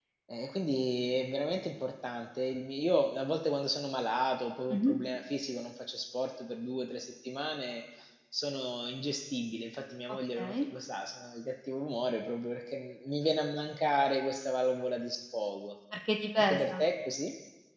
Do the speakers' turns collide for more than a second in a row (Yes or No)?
No